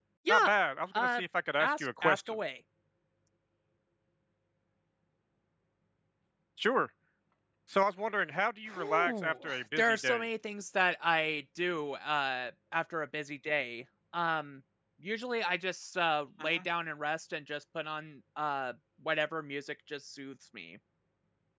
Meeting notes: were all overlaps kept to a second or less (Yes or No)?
No